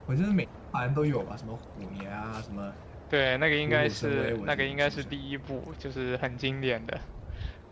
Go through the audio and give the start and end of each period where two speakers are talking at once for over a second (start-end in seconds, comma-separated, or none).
3.7-5.2